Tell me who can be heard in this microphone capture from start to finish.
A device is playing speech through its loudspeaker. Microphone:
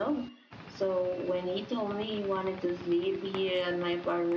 echo only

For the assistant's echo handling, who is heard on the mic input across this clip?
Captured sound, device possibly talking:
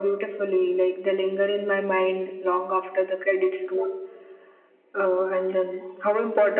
echo only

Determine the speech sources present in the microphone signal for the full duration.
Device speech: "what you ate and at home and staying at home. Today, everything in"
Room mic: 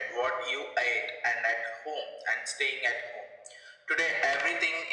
echo only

